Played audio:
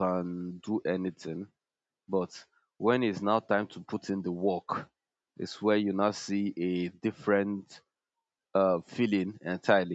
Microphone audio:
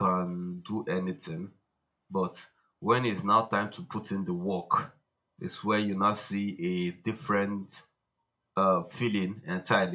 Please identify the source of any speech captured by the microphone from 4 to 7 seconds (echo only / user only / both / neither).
echo only